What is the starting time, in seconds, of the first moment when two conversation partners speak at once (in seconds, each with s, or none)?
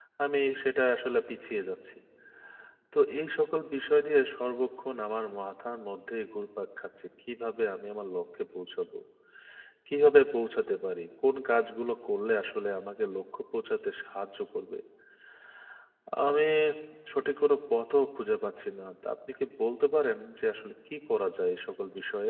none